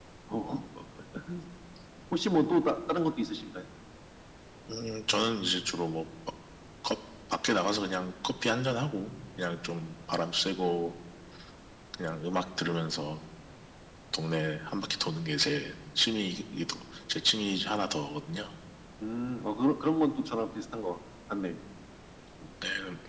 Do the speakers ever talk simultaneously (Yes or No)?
No